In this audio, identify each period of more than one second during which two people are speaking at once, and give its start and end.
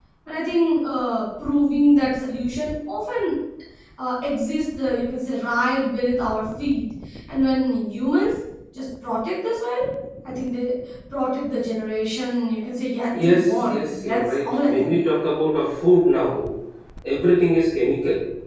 13.2-15.0

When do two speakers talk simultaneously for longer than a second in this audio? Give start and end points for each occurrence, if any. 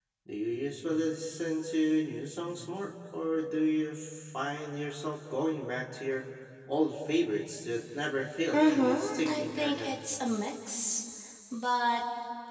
8.5-9.9

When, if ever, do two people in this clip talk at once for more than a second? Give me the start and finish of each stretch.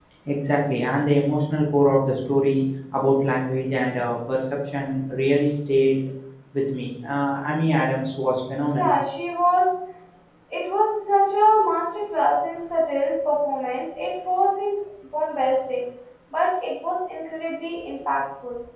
none

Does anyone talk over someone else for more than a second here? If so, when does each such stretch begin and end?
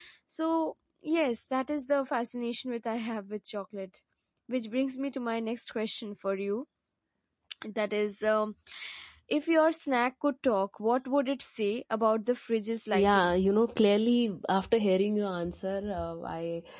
none

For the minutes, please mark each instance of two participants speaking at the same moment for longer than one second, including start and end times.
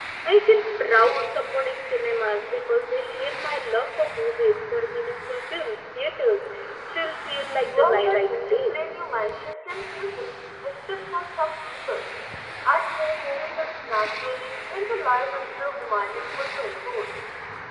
7.7-8.9

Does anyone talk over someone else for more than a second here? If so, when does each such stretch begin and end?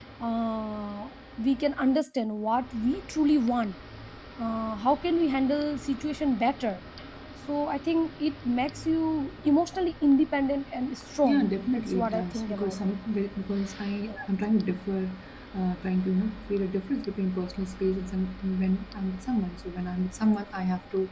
11.2-12.9

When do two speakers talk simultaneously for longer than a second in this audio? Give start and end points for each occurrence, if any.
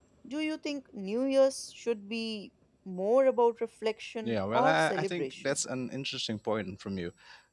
4.2-5.6

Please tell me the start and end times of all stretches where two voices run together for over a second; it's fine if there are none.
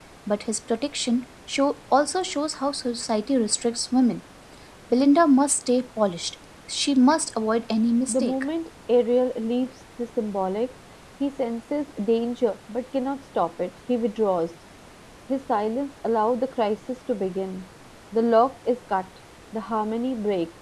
none

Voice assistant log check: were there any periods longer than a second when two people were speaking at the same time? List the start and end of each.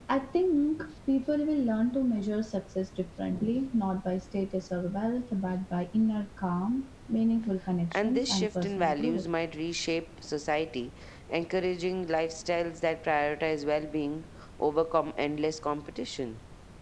7.9-9.2

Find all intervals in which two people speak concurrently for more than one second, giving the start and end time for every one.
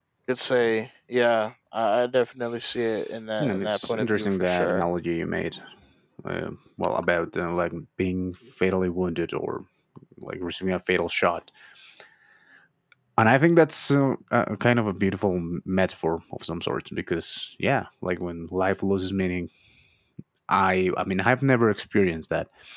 3.4-4.8

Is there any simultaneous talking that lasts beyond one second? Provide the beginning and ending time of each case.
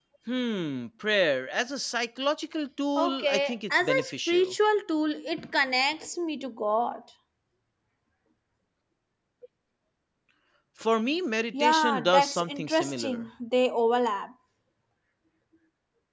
3.0-4.5, 11.5-13.2

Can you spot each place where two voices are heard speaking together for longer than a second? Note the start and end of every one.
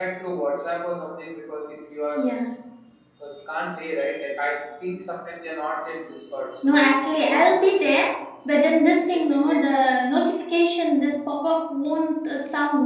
6.6-7.9

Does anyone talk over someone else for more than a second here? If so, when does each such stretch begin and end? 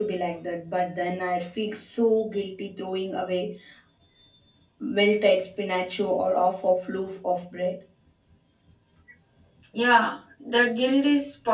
none

